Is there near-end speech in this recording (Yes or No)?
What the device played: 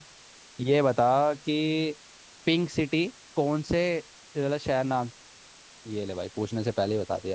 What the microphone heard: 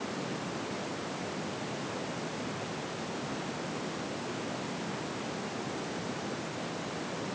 No